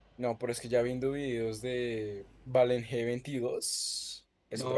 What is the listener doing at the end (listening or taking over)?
taking over